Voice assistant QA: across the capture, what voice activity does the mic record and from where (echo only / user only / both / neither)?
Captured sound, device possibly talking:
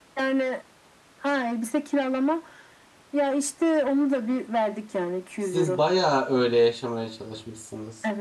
both